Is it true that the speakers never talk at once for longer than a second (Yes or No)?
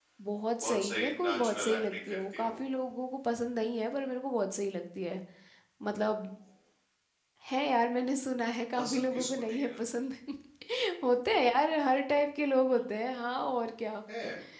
No